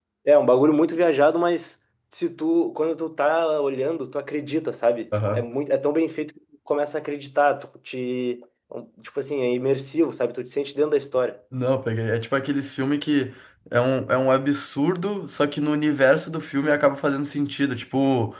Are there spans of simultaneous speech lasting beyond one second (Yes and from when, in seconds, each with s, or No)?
No